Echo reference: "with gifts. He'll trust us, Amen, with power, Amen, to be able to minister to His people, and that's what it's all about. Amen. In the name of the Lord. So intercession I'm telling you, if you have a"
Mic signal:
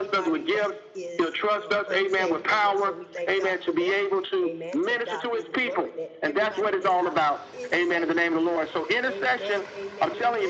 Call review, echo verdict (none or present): present